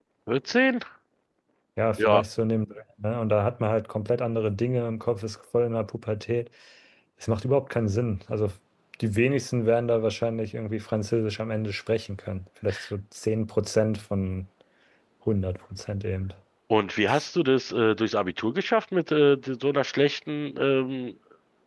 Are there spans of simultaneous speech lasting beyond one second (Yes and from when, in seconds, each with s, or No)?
No